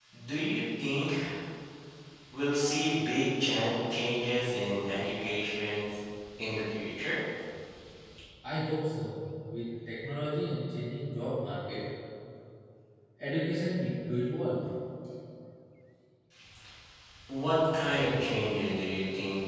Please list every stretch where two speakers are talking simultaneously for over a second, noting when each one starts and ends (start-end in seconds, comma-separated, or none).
none